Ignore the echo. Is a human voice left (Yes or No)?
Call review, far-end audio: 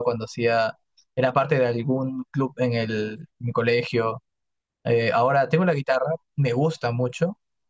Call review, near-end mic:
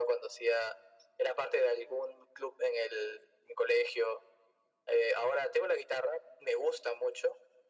No